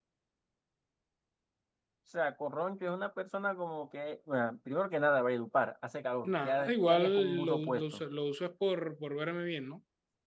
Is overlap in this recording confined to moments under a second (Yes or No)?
No